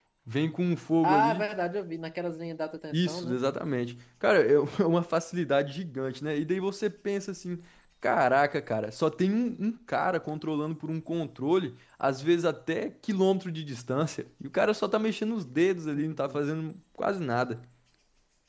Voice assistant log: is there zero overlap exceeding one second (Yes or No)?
Yes